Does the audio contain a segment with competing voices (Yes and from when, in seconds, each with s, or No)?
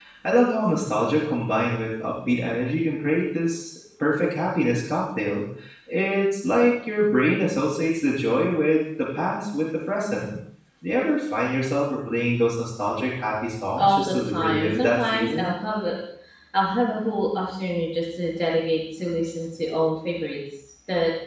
Yes, from 13.8 s